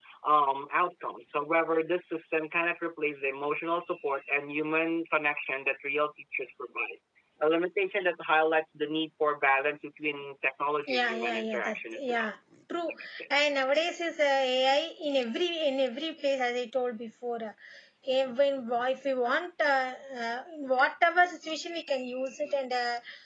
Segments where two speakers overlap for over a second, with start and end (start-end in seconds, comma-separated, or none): 10.9-12.2